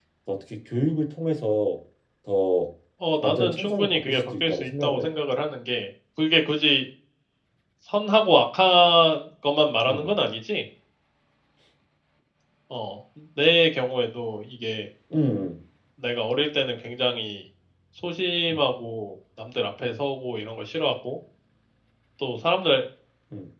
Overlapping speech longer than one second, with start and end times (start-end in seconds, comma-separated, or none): 3.2-5.1